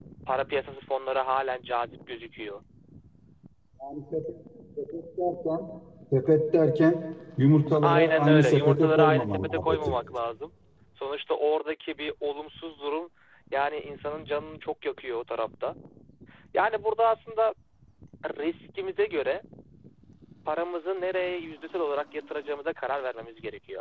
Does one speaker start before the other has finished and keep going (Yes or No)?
Yes